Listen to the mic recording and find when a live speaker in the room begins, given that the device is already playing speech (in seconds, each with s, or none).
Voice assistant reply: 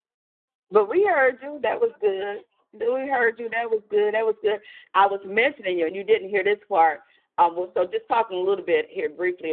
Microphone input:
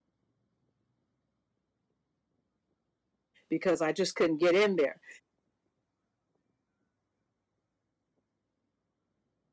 3.5 s